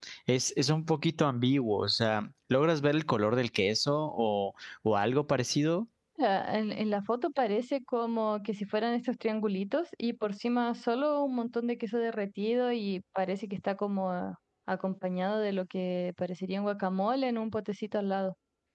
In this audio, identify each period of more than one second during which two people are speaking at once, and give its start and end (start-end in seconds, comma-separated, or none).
none